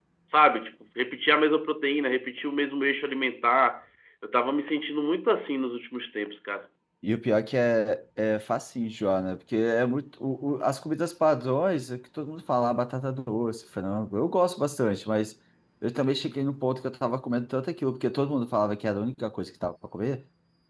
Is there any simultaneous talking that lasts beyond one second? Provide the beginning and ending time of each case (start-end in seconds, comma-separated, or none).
none